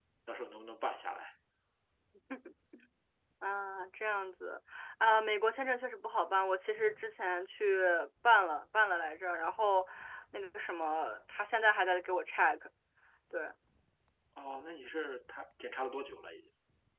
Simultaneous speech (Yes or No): No